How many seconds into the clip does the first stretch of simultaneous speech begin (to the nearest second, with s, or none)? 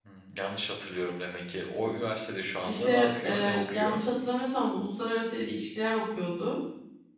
3 s